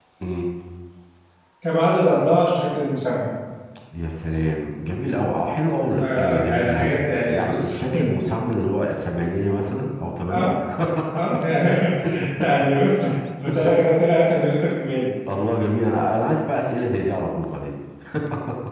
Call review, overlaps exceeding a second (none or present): present